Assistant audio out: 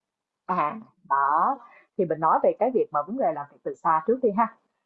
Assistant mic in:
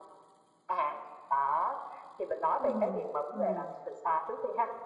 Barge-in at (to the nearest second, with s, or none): 3 s